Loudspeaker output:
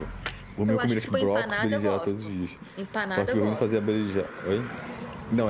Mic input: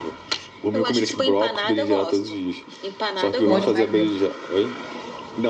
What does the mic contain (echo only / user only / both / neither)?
both